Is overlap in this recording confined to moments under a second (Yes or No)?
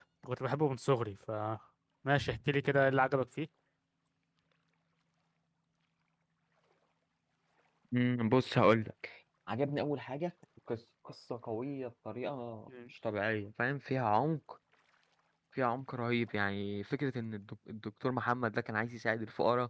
Yes